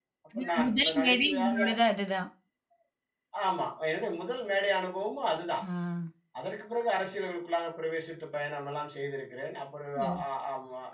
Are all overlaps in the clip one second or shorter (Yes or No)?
No